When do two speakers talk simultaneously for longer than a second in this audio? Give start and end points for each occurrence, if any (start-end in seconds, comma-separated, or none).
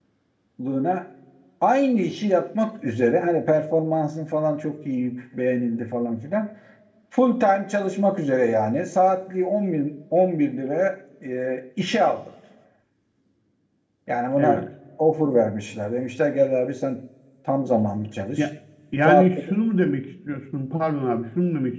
none